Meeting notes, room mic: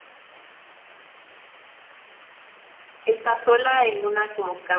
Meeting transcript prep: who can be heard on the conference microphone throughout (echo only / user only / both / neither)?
user only